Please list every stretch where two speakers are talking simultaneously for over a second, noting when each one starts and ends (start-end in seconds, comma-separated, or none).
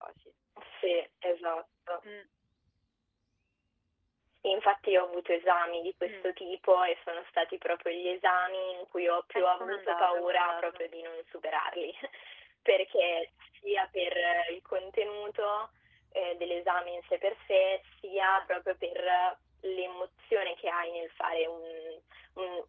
9.3-10.8